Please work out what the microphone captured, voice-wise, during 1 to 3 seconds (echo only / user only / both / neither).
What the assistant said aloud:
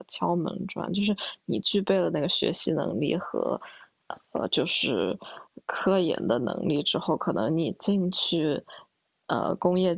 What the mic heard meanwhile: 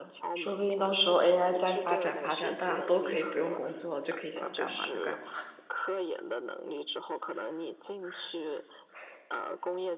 both